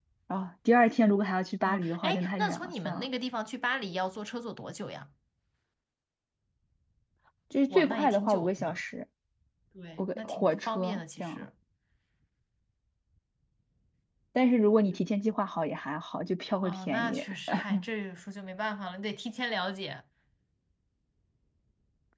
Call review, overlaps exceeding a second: present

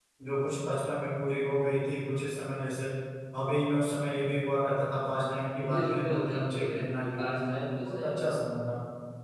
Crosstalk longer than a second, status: present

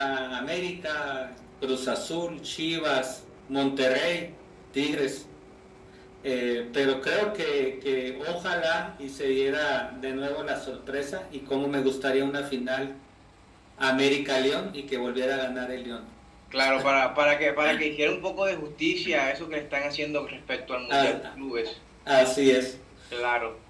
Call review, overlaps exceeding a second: none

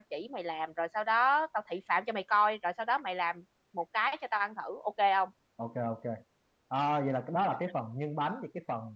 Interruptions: none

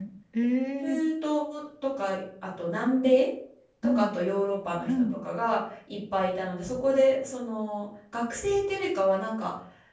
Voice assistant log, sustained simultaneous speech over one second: none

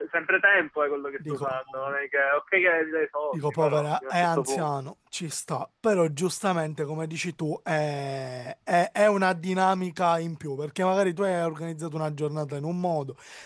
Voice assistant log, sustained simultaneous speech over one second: present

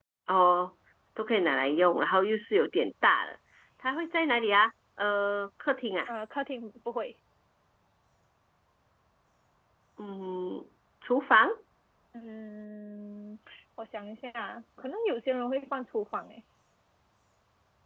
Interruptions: none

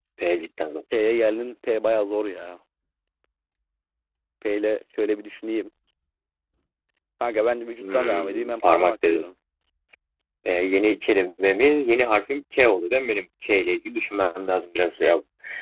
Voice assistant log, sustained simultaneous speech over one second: present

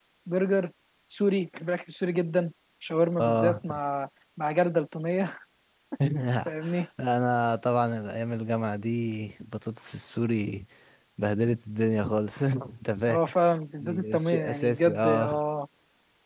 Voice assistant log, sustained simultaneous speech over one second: present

